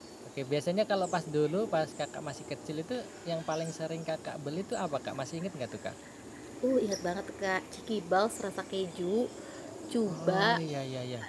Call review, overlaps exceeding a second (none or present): none